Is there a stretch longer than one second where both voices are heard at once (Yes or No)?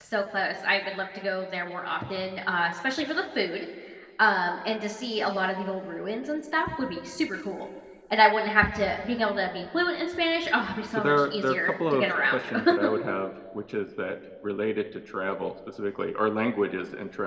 Yes